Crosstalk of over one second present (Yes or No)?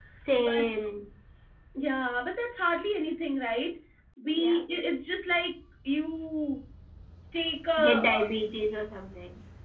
No